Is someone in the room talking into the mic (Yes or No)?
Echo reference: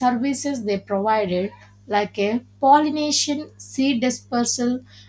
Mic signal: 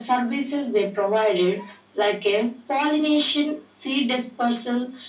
No